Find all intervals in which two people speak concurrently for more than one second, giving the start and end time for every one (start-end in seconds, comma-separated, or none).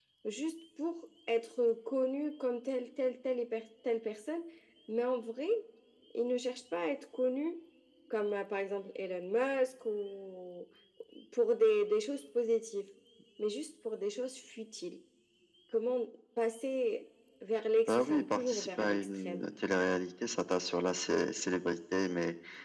17.9-19.4